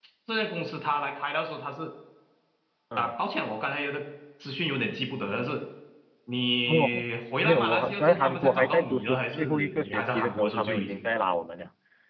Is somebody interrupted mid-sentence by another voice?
Yes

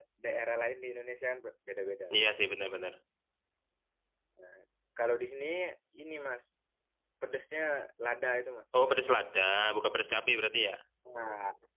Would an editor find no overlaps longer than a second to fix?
Yes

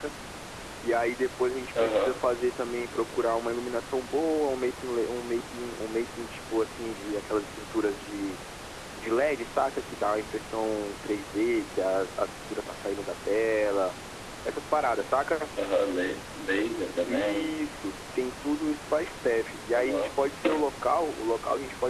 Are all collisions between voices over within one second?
Yes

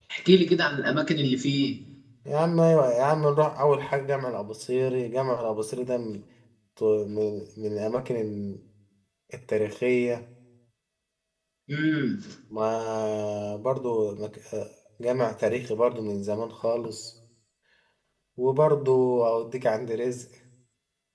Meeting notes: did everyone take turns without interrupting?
Yes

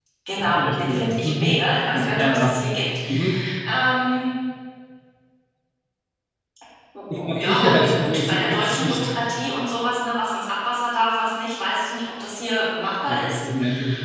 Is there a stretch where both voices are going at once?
Yes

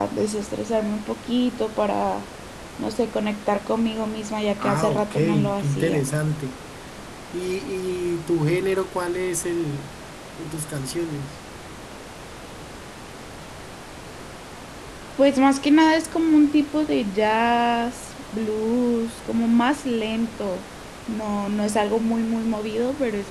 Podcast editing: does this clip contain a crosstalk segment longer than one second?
Yes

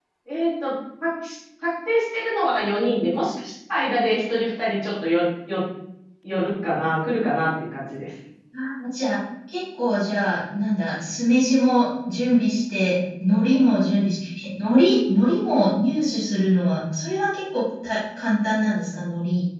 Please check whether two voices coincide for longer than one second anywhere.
No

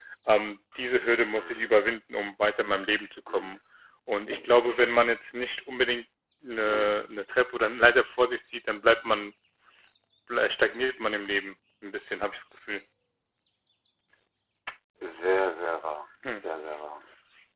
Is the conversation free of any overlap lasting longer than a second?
Yes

